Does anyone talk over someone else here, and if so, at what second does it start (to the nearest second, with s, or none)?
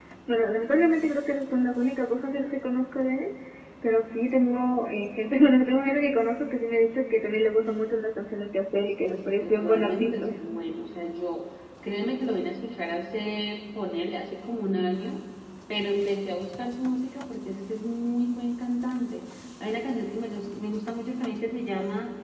9 s